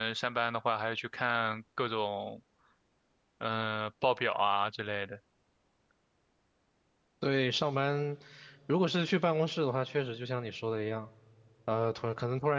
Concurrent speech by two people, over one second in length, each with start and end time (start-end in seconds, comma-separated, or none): none